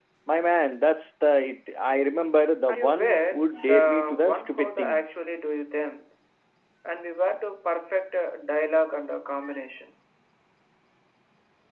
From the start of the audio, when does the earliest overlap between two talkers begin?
2.7 s

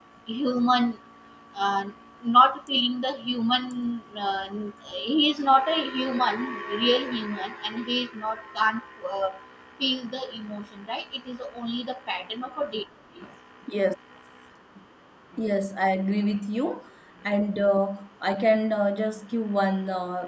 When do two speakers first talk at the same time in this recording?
none

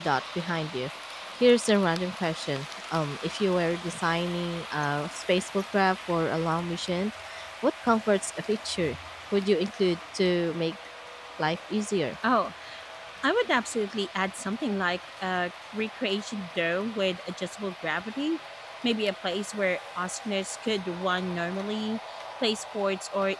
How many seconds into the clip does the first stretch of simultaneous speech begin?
none

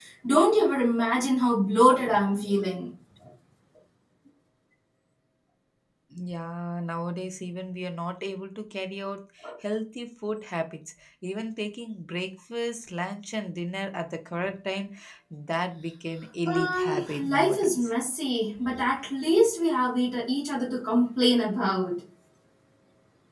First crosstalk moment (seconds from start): 16.4 s

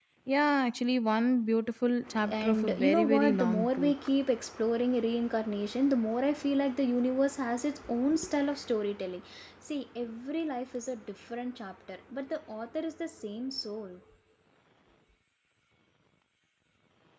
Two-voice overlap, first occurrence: 2.1 s

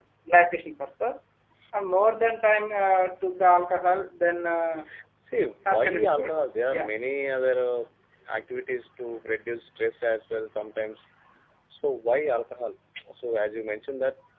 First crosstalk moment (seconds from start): 5.7 s

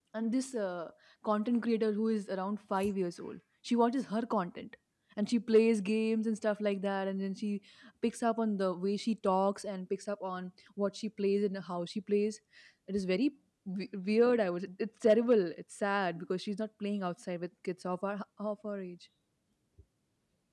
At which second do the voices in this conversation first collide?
none

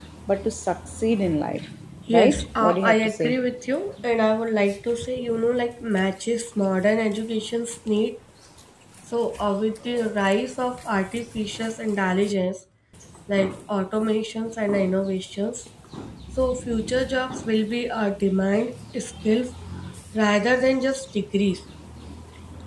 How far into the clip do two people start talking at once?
2.1 s

